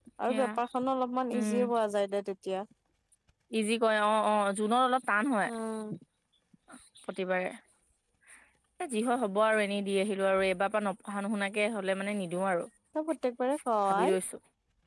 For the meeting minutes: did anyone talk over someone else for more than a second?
No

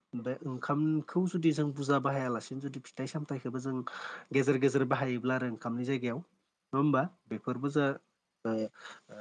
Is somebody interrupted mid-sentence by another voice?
No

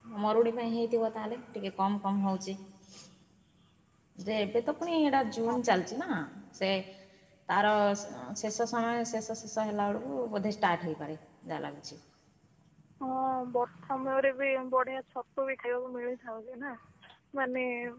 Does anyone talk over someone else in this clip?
No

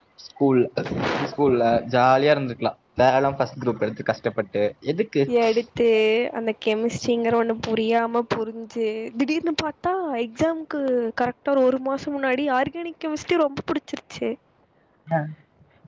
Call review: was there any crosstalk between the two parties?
No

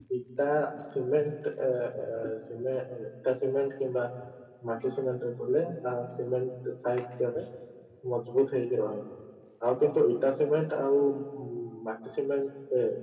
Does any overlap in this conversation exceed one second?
No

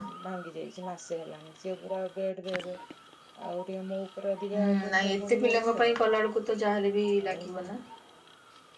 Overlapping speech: Yes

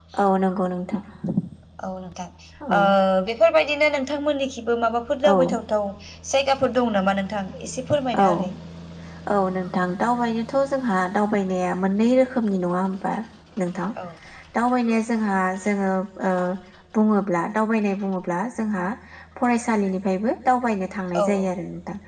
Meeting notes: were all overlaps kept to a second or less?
Yes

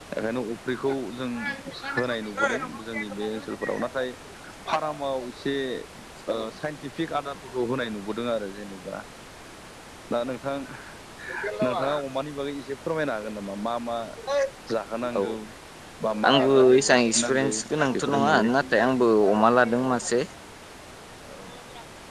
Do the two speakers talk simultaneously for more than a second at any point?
Yes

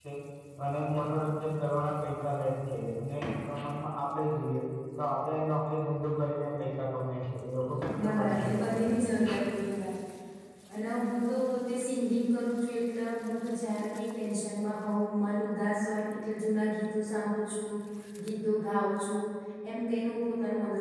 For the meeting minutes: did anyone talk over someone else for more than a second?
Yes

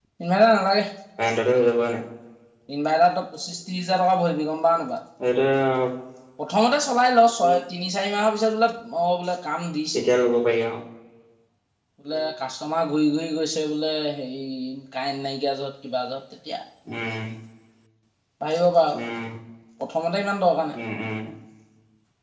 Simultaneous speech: No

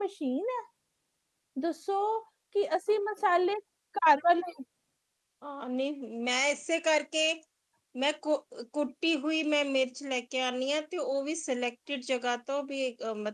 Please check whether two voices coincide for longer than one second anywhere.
No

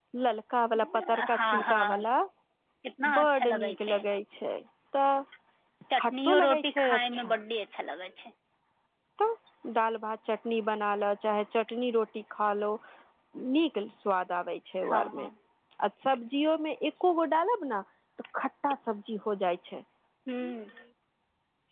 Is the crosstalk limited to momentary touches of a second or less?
No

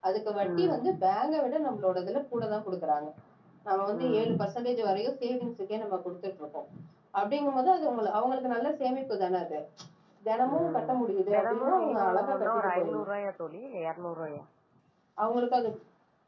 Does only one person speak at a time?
No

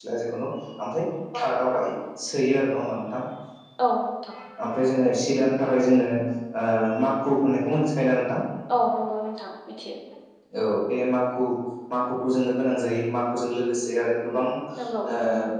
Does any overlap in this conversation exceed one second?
No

